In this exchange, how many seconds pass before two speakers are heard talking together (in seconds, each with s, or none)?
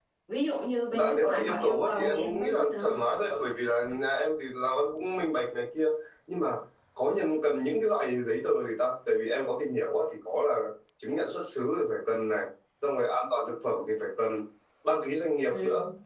1.0 s